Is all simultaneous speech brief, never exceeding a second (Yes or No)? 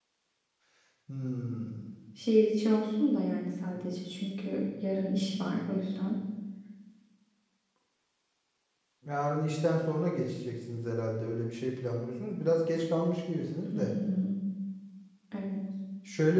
Yes